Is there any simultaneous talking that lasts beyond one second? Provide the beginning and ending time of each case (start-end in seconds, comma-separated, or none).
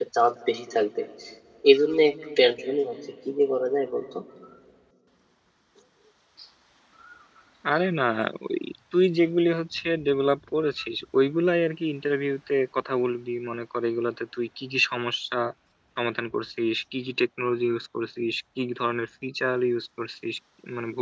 none